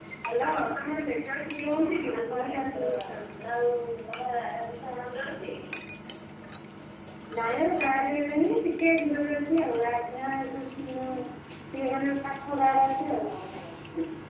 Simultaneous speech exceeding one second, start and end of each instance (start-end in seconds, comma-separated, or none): 1.7-3.2